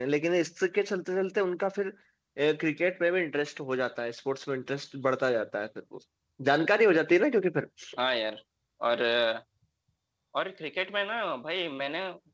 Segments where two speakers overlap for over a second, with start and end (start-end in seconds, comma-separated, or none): none